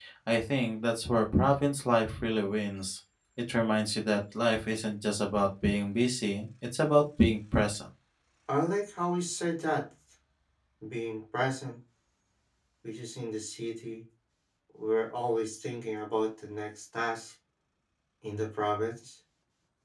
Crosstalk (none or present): none